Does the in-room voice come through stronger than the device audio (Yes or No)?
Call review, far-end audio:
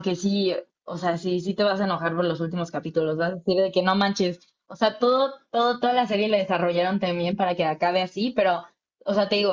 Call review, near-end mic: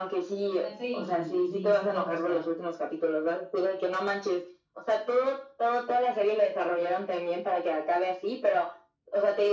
No